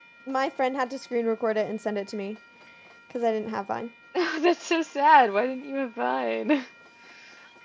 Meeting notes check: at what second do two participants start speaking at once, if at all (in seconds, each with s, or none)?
none